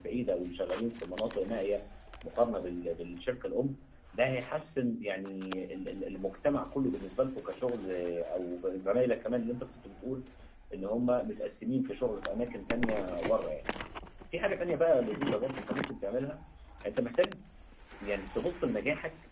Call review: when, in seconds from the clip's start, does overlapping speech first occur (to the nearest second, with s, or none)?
none